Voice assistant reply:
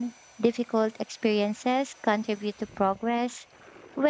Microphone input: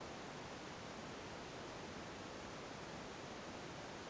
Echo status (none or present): none